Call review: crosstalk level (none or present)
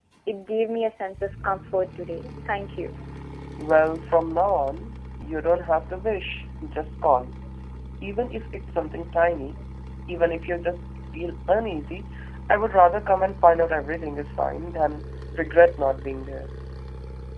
none